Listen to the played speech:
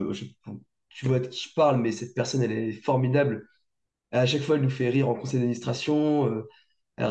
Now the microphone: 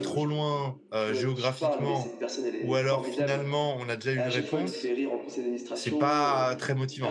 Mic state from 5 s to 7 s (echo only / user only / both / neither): both